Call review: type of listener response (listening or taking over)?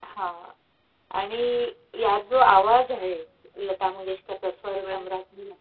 listening